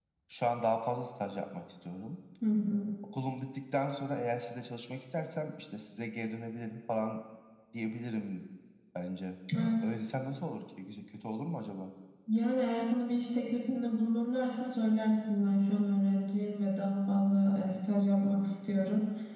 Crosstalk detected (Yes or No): No